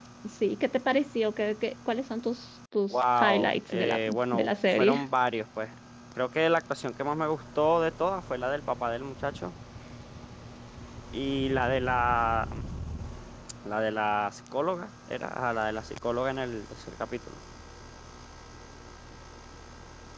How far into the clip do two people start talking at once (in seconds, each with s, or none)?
2.9 s